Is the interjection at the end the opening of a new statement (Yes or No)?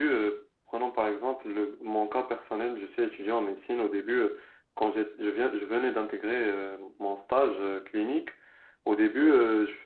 No